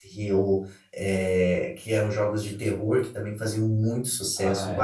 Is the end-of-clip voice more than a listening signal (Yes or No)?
No